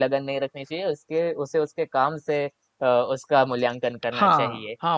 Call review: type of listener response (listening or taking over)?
taking over